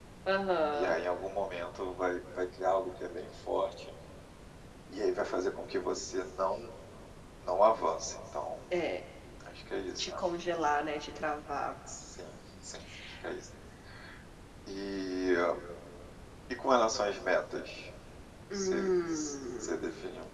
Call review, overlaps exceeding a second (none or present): none